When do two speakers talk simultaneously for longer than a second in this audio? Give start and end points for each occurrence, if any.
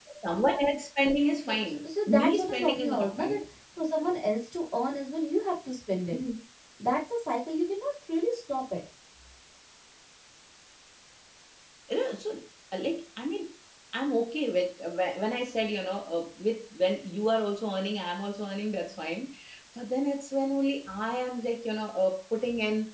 2.2-3.4

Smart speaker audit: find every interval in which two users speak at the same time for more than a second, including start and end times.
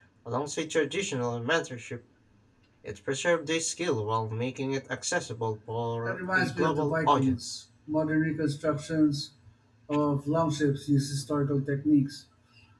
6.0-7.6

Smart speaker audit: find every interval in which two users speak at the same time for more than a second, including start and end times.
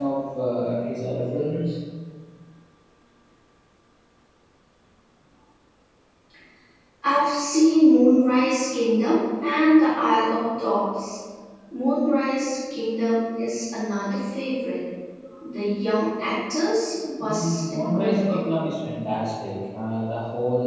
17.2-18.5

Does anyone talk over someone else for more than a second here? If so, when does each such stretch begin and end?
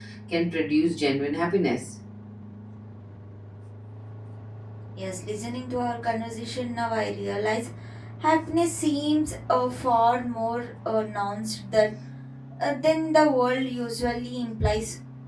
none

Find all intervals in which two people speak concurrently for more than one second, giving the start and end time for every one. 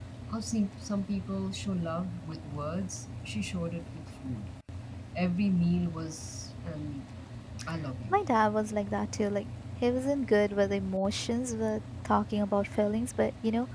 none

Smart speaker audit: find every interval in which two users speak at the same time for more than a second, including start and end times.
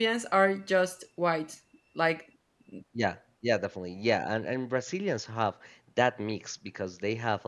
none

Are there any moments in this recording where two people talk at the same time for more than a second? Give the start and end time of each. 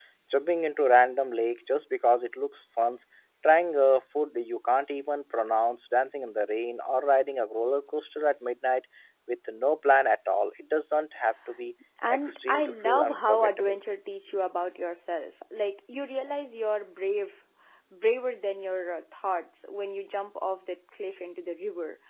12.1-13.8

